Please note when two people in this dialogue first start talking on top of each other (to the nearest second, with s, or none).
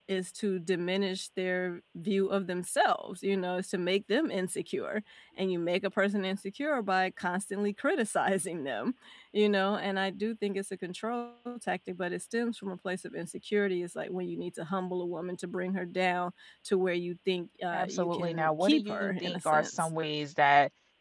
18 s